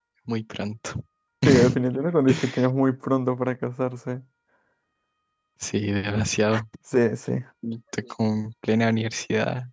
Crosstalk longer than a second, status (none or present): none